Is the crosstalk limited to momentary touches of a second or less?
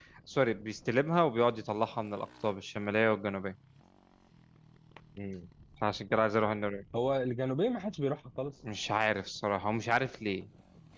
Yes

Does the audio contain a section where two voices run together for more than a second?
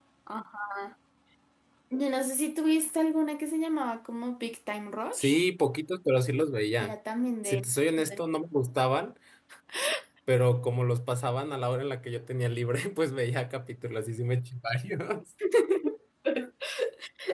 No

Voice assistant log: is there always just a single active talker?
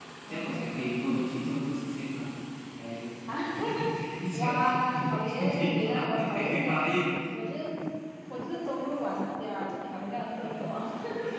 No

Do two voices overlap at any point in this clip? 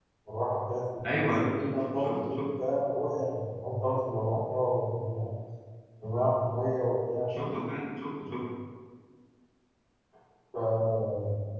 Yes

